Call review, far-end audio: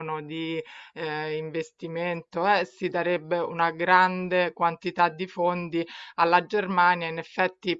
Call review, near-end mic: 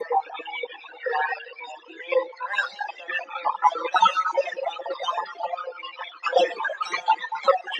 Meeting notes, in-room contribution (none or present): none